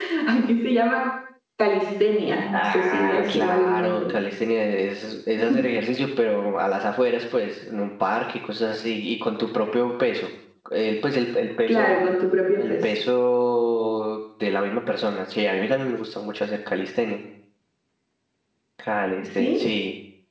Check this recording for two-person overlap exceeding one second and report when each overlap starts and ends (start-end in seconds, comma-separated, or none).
2.5-4.0